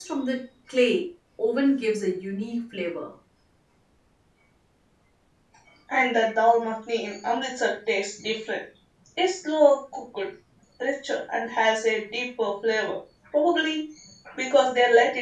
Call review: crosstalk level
none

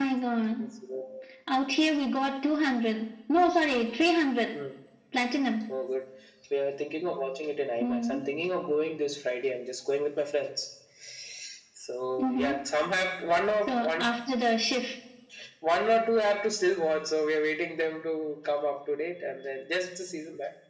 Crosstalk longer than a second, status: none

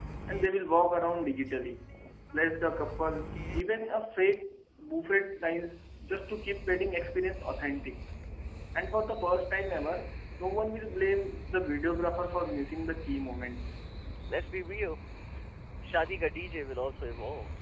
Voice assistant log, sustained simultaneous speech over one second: none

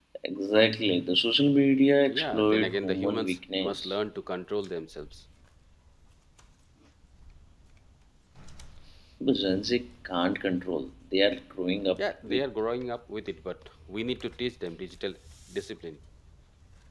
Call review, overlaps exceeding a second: present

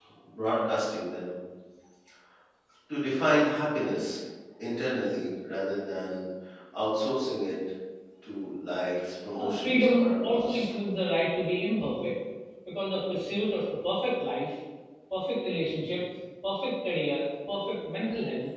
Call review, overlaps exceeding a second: present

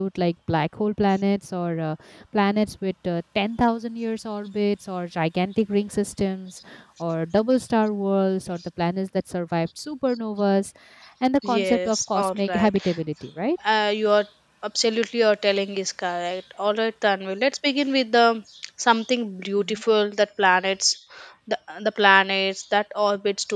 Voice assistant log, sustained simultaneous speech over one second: present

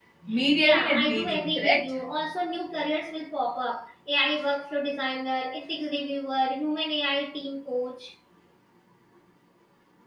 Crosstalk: present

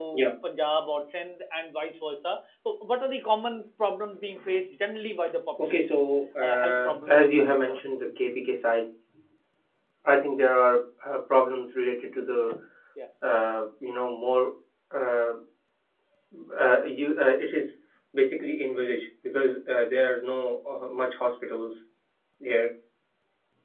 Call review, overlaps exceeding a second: present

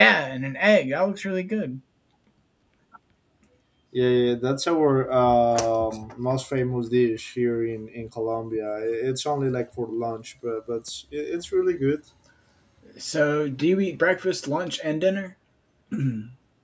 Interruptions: none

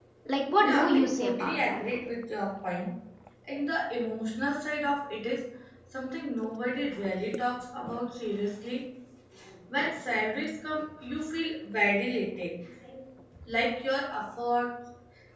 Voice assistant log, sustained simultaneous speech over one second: present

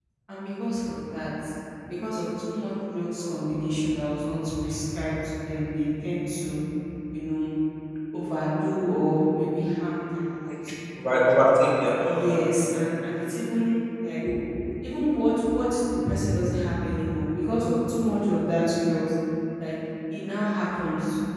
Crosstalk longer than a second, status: none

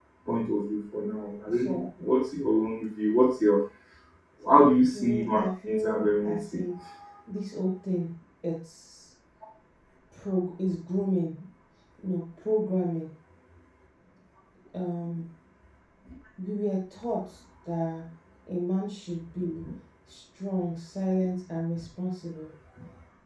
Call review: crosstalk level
present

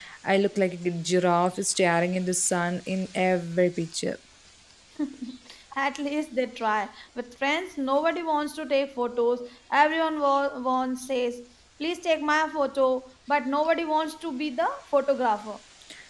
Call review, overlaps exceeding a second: none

